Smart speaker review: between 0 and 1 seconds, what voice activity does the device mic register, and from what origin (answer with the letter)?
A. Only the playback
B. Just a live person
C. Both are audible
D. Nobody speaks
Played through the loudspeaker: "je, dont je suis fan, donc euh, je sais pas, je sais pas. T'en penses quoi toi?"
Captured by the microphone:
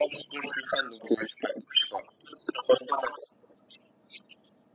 A